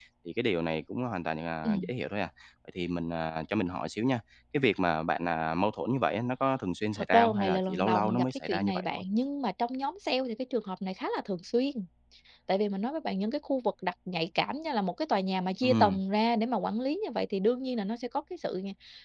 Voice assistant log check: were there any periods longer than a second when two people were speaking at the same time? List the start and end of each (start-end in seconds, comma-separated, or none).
7.1-9.0